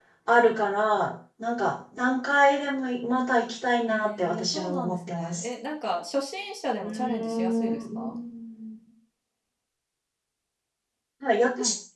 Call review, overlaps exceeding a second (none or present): present